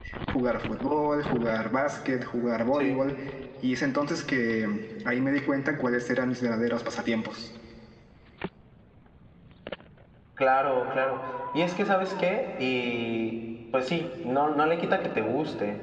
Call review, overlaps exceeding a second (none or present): none